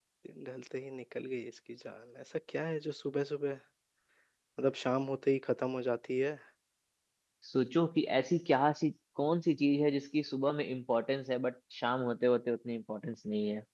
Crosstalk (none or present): none